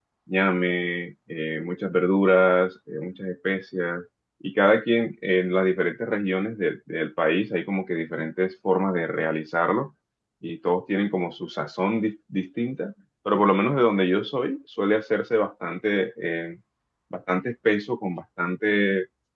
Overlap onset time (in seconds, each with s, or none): none